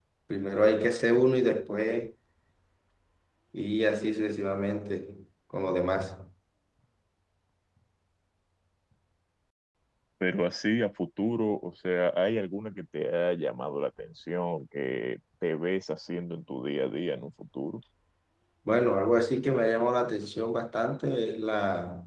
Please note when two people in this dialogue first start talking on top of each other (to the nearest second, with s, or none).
none